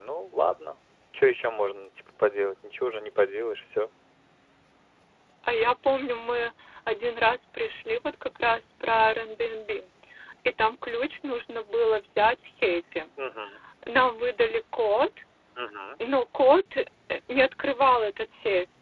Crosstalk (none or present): none